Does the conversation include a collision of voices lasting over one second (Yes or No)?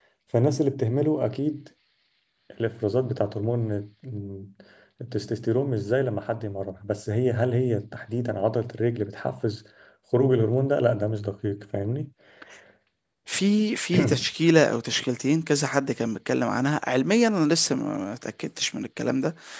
No